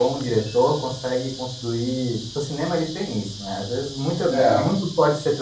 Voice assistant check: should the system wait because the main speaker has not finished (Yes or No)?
Yes